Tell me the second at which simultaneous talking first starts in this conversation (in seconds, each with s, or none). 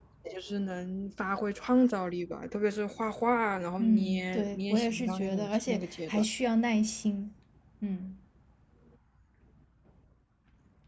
3.8 s